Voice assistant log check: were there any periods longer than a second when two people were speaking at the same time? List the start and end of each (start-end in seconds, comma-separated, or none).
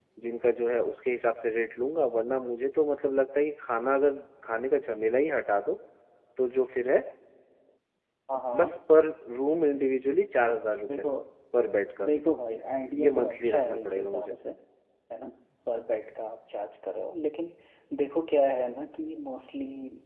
13.1-14.3